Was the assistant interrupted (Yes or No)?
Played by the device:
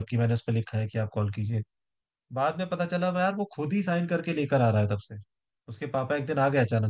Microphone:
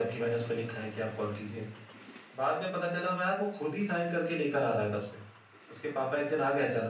No